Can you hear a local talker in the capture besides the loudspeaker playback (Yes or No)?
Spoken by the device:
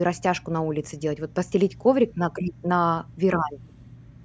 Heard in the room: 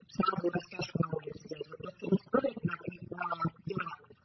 No